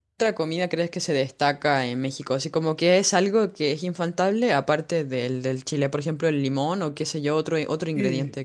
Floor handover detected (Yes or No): Yes